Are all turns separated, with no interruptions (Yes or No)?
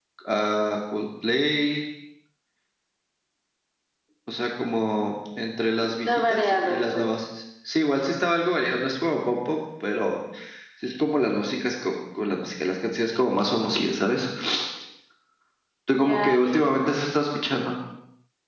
No